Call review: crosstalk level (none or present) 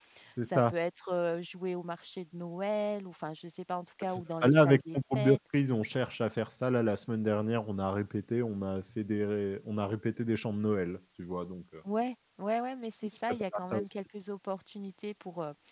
present